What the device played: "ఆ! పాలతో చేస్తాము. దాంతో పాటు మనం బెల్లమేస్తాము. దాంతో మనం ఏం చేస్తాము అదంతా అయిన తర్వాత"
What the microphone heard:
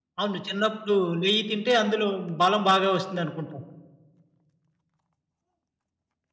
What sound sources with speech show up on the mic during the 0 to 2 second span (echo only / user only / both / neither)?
user only